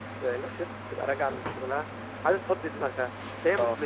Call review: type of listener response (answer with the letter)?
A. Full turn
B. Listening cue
B